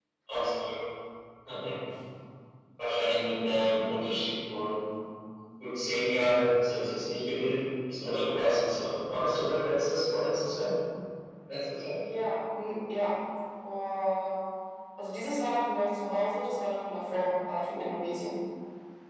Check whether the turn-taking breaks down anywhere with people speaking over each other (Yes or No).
No